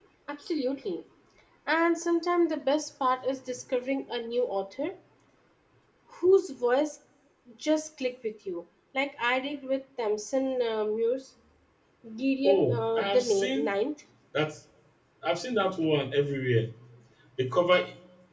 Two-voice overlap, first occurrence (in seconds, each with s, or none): 12.5 s